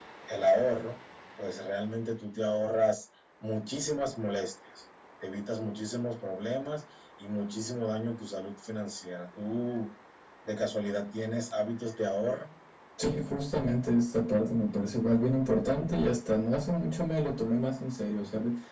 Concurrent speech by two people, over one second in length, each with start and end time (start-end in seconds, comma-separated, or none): none